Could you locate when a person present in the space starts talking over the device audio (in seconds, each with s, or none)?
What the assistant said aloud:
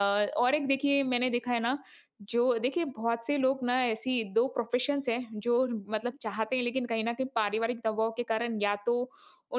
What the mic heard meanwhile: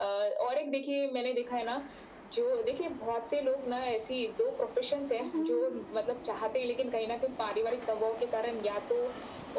none